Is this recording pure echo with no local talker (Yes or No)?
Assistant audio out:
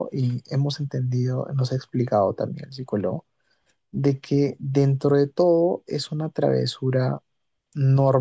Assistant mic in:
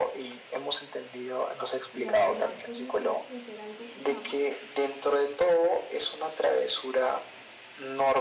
No